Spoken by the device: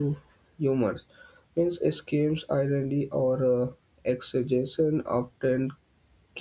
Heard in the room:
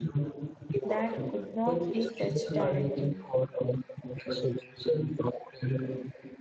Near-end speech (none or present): present